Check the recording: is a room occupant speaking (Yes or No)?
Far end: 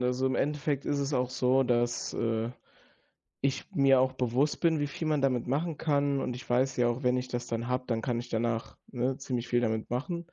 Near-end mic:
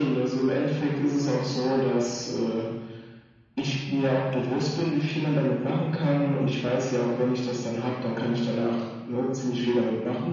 No